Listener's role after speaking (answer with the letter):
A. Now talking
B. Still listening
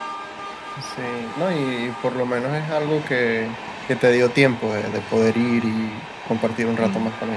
A